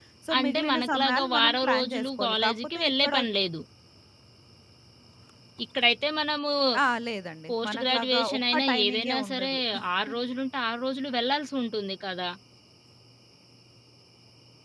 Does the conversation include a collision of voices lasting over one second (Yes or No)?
Yes